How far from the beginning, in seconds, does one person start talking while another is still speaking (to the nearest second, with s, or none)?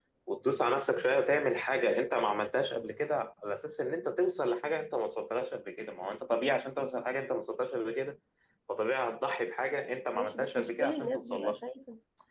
10 s